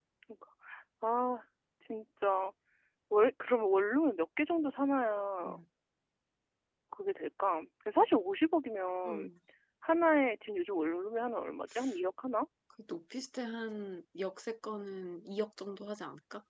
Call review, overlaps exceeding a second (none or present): none